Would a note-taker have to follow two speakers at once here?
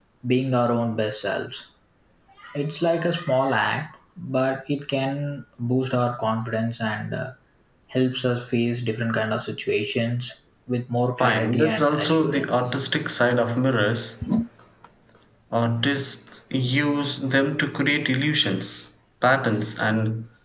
Yes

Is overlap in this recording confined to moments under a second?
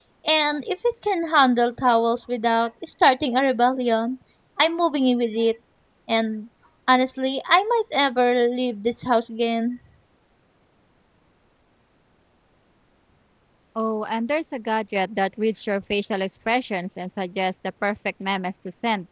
Yes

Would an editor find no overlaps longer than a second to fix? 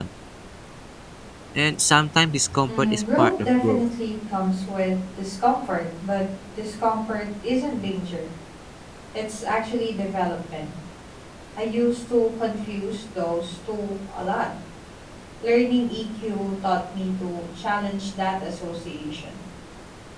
No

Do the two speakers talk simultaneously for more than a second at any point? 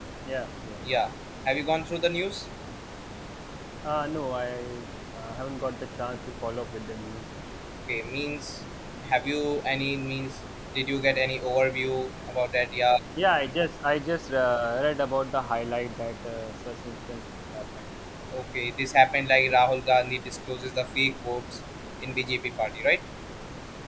No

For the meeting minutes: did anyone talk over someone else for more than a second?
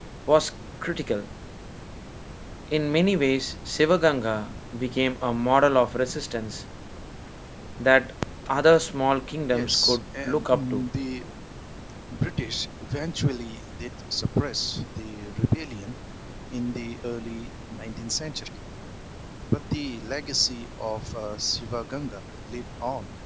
Yes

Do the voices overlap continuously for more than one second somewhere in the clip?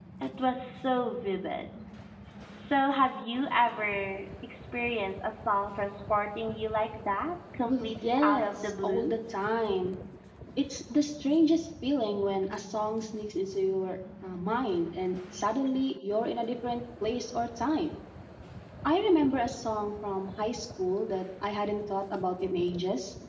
Yes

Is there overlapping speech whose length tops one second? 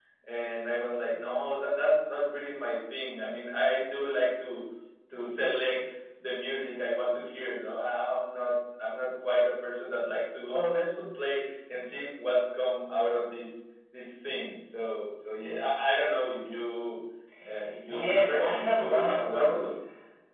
Yes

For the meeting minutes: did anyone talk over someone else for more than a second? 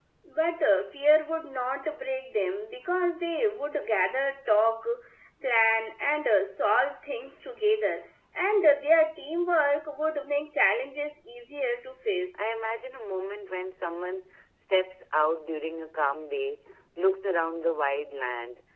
No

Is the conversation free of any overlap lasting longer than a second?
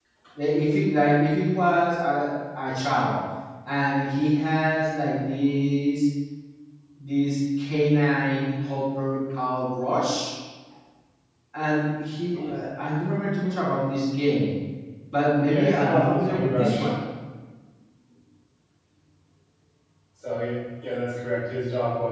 No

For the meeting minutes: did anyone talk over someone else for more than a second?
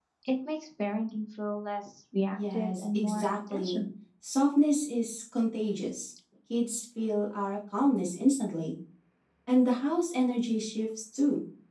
Yes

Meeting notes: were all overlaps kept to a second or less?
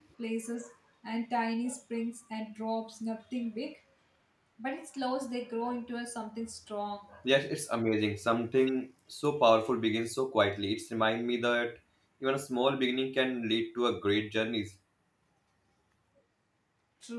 Yes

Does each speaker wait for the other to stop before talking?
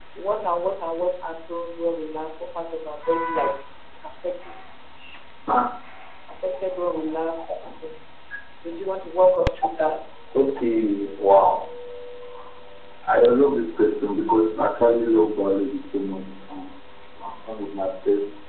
Yes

